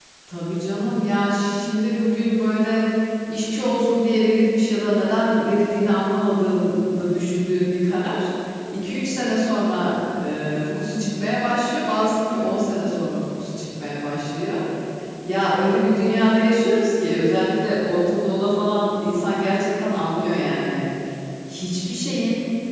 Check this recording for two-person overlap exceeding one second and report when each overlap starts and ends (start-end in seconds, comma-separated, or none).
none